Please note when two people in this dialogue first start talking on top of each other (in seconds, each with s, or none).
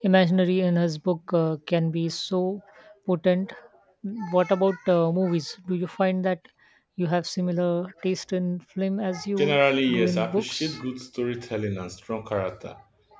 9.4 s